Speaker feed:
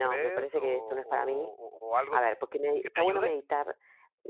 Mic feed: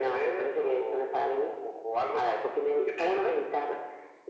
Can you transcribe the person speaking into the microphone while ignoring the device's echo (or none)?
none